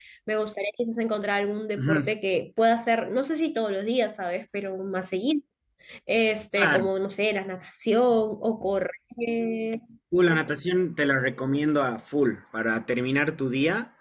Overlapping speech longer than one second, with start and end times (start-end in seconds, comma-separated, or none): none